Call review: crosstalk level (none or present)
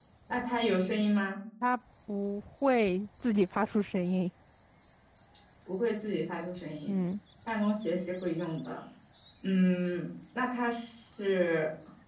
none